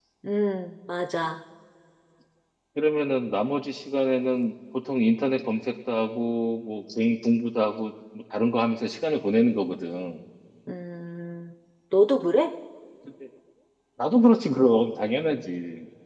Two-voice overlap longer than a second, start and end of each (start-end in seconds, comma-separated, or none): none